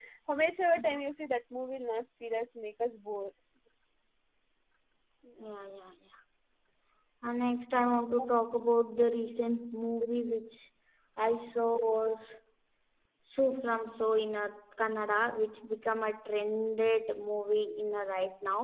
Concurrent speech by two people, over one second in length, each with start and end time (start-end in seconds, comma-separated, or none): none